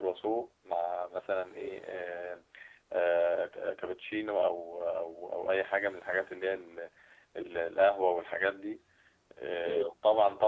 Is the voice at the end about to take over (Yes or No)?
No